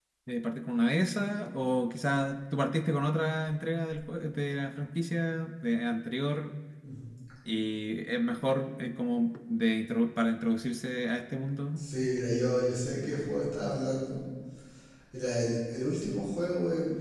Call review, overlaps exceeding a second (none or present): none